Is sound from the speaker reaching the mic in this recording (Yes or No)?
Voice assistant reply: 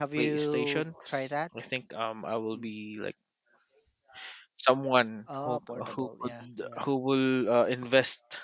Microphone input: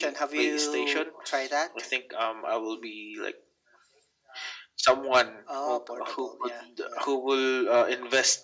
Yes